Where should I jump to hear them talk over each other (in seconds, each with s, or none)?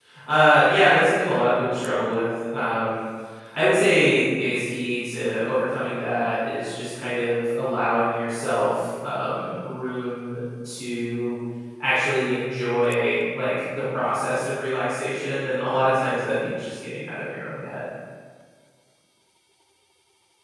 none